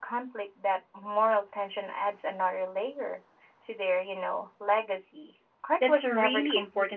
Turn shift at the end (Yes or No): Yes